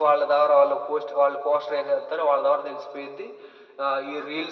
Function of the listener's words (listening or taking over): listening